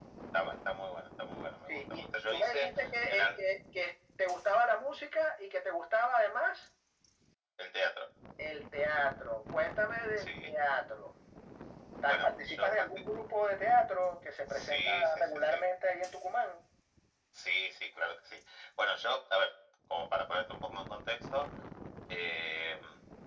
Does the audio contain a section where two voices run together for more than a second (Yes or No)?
Yes